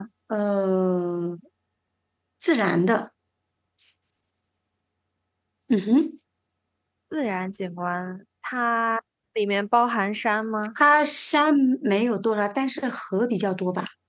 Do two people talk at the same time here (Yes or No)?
No